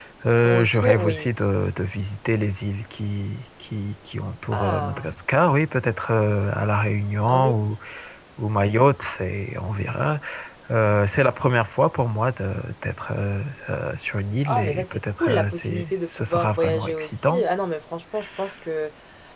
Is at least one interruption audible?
Yes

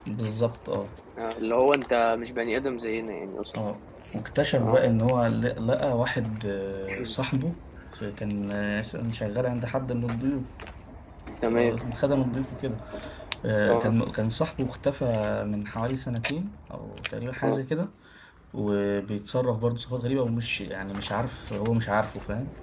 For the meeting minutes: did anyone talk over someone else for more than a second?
No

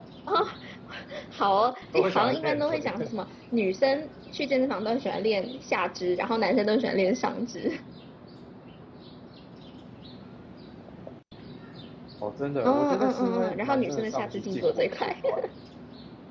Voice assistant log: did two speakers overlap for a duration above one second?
Yes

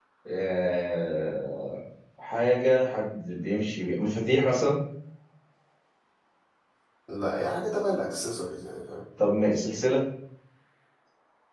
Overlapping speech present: No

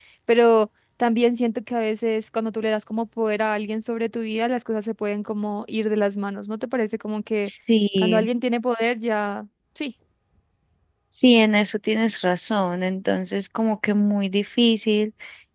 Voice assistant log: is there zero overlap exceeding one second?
Yes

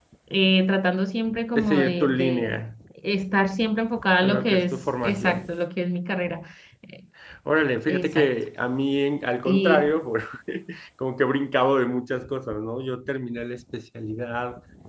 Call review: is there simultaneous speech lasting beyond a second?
Yes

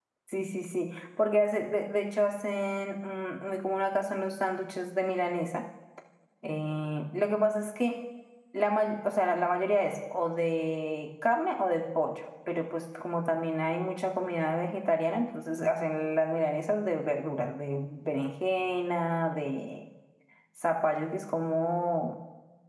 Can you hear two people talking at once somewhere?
No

